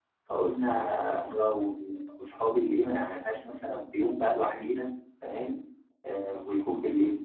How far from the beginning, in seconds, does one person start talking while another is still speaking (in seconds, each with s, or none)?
none